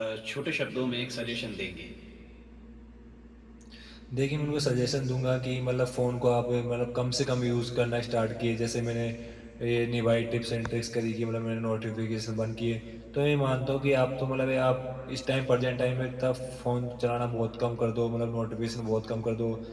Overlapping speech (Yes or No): No